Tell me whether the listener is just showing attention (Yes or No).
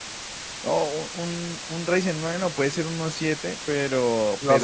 Yes